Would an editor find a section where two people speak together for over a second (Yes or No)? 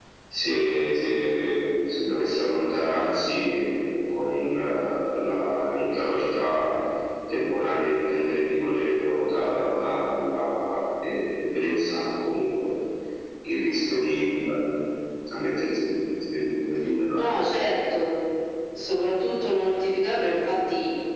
No